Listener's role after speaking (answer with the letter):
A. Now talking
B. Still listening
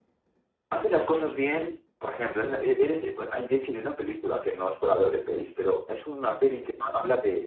B